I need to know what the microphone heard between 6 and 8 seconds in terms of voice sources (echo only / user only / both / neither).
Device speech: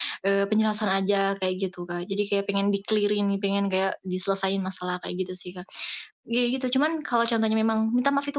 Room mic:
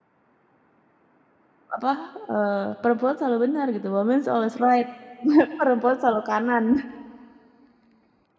user only